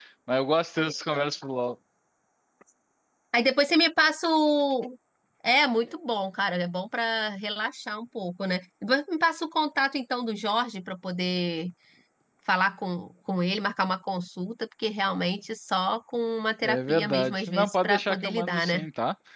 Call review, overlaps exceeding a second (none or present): present